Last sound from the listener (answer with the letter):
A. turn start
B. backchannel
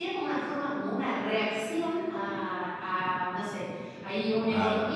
B